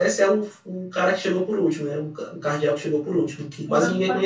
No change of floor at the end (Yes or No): No